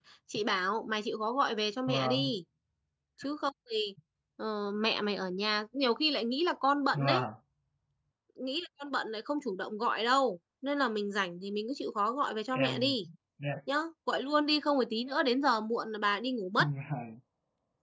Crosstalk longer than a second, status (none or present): none